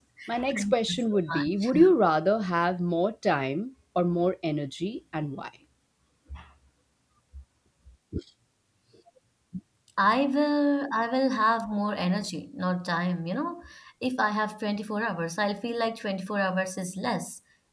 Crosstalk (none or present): present